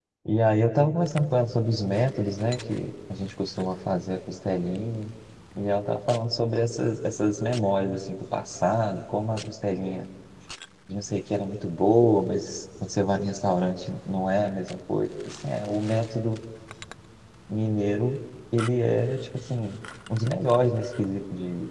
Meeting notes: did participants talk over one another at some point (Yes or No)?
No